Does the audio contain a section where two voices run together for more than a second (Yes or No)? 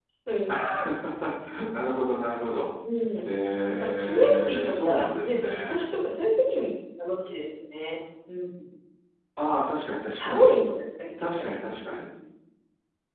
Yes